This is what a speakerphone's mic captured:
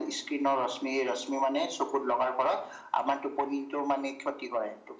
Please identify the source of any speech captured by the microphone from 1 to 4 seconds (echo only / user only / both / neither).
echo only